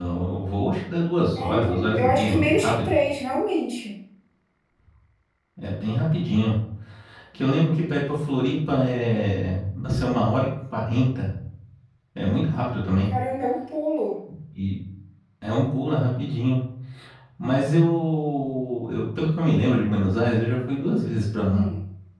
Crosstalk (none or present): present